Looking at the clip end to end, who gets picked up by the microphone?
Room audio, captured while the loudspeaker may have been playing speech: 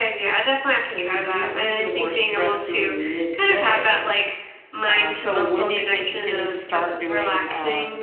both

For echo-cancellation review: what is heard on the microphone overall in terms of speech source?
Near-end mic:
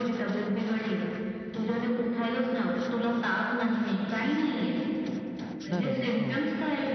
both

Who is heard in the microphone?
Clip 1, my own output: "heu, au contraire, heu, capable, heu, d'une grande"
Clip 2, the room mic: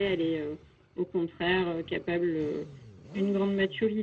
echo only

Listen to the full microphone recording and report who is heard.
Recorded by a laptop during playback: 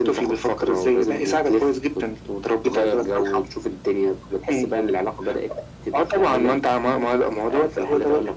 echo only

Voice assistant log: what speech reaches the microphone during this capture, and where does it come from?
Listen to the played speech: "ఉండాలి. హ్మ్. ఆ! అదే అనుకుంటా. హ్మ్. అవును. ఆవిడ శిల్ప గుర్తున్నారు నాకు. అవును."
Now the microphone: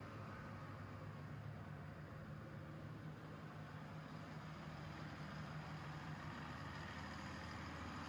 neither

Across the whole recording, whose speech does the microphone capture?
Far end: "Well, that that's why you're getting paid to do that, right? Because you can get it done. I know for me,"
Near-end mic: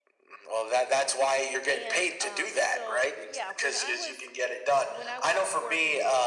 both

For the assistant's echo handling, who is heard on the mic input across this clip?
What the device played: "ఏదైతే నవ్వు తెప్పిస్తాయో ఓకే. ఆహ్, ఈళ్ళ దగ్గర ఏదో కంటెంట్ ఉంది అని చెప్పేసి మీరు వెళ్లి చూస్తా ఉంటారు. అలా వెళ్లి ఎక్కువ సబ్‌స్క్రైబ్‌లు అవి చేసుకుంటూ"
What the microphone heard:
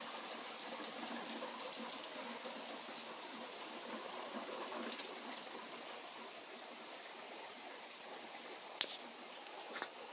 neither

